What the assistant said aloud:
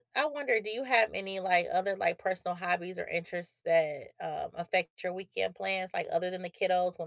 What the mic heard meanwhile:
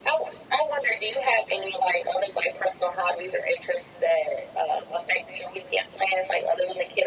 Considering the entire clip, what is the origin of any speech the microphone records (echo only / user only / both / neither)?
echo only